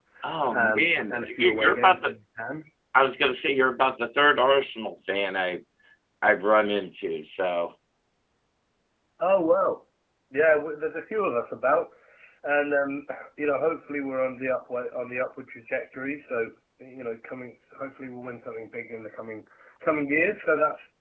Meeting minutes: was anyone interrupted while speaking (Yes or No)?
Yes